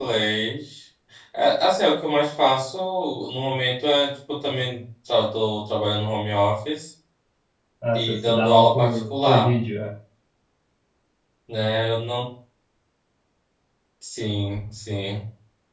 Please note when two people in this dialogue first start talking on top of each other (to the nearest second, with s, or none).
8 s